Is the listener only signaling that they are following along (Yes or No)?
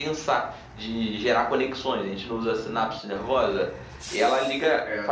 Yes